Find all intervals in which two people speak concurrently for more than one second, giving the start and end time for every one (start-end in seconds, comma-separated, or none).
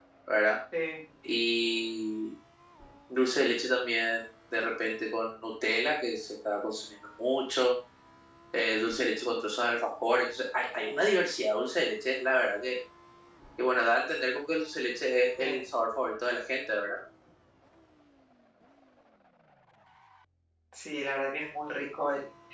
none